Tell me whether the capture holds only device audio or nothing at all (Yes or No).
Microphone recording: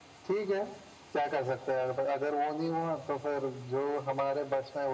Yes